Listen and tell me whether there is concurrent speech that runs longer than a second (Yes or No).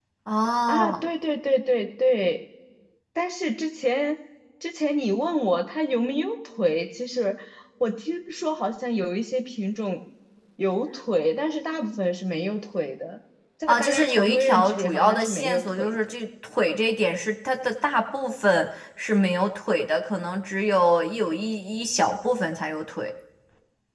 Yes